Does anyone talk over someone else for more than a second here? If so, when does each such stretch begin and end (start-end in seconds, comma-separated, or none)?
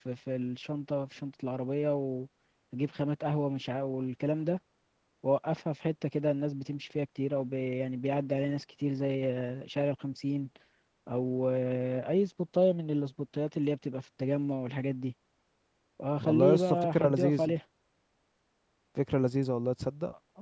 16.2-17.5